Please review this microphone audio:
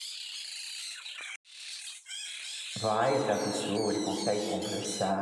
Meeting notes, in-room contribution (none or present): present